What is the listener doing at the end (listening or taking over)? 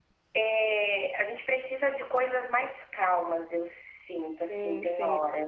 taking over